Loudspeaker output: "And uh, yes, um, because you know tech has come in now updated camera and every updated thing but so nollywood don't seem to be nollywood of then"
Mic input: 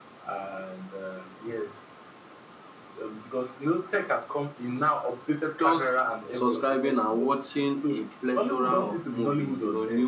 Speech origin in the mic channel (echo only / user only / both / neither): both